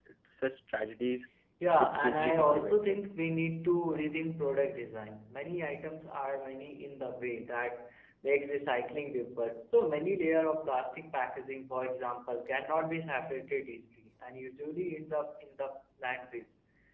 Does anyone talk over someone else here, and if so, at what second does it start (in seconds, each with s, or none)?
1.8 s